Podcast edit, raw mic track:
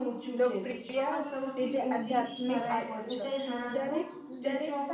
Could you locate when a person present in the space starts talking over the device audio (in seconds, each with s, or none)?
0.4 s